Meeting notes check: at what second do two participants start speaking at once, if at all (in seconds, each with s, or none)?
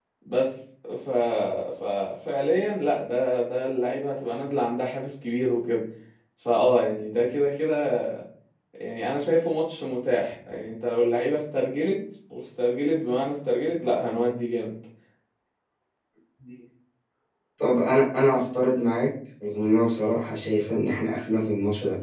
none